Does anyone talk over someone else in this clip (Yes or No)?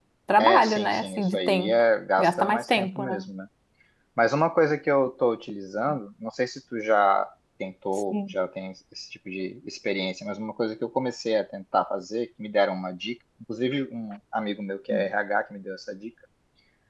Yes